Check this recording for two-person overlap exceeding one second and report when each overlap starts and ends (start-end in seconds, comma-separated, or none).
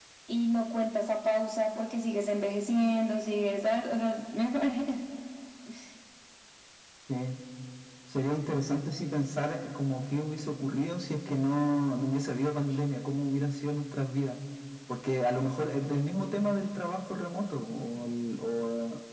none